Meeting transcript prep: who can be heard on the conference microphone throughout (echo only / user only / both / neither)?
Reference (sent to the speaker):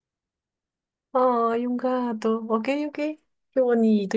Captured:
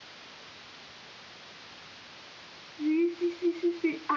user only